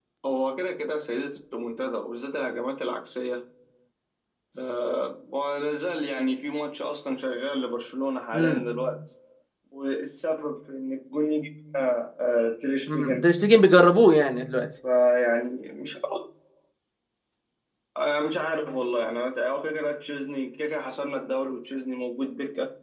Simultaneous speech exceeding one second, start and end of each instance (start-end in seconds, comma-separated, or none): none